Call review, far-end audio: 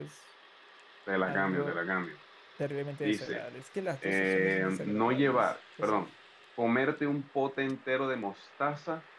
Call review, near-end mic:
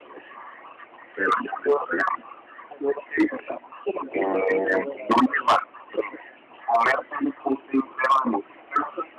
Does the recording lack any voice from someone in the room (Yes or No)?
No